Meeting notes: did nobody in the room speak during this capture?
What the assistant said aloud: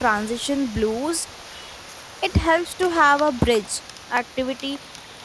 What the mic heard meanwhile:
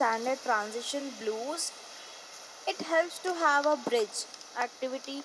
Yes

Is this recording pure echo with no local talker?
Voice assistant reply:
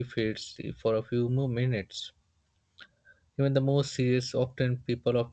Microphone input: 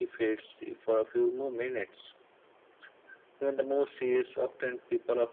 Yes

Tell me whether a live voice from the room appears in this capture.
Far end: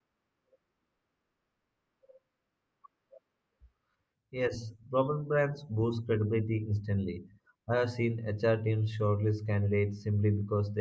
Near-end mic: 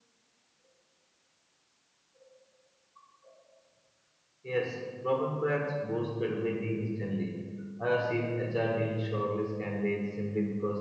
No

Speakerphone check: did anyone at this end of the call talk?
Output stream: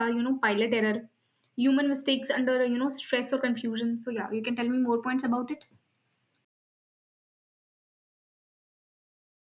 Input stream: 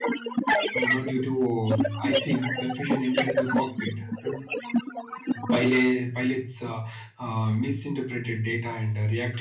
Yes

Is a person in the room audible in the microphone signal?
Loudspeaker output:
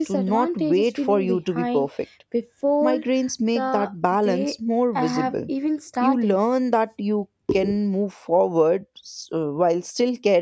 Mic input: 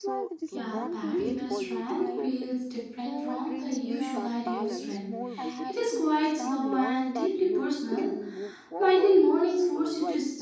Yes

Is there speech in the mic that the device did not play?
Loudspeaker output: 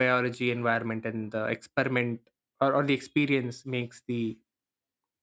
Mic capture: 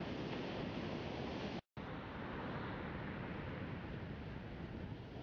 No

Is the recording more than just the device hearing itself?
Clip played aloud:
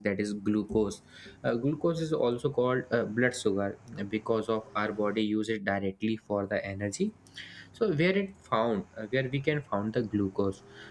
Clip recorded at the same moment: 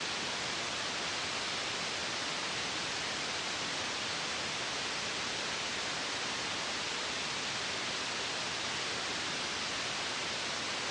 No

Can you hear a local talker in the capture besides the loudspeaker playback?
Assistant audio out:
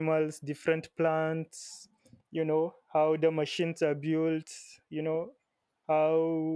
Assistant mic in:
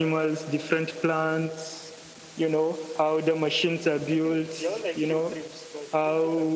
Yes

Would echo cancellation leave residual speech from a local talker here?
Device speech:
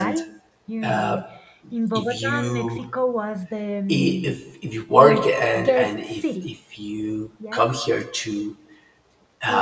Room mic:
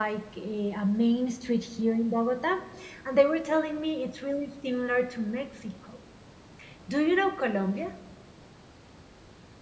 Yes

